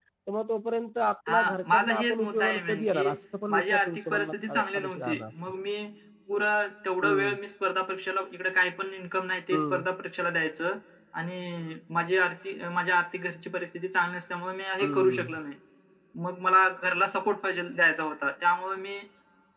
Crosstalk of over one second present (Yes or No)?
Yes